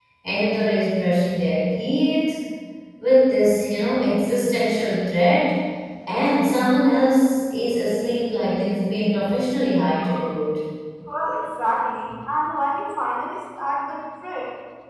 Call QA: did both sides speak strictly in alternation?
Yes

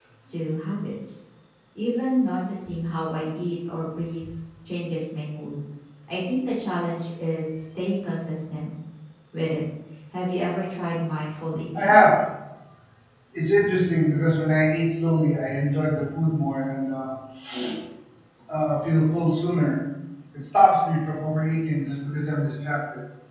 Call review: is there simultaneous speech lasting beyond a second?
No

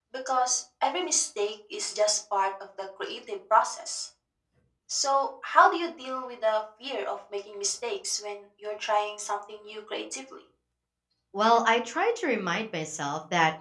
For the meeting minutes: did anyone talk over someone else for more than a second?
No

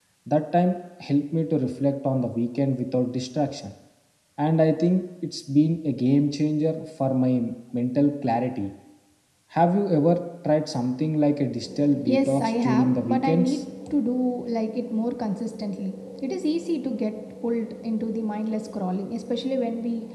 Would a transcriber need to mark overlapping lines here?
Yes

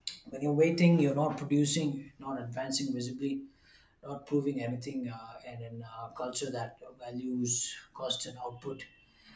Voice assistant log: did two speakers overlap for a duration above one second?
No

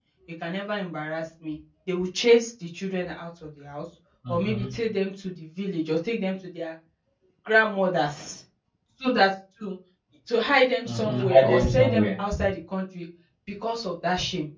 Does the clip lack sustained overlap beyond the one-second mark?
No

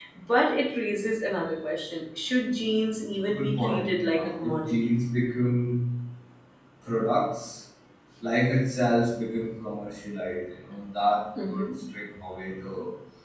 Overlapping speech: Yes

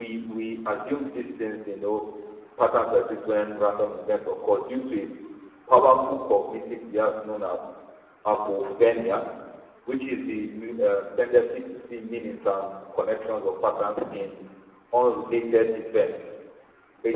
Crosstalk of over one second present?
No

